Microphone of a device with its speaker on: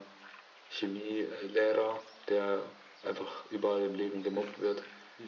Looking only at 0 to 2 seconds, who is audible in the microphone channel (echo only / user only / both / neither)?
echo only